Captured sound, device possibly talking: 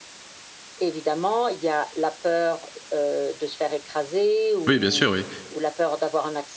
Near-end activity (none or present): present